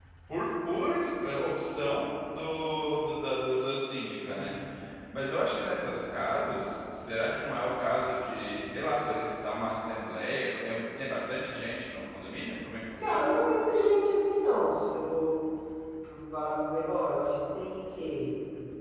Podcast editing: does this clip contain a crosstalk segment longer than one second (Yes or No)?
No